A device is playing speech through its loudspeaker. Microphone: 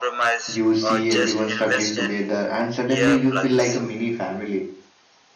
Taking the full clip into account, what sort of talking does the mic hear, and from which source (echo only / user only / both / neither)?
both